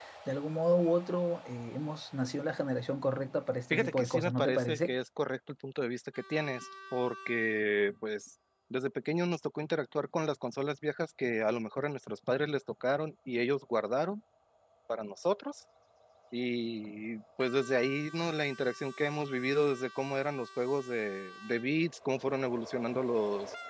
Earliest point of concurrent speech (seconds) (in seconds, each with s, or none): 3.7 s